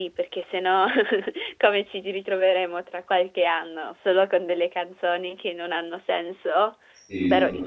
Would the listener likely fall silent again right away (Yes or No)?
No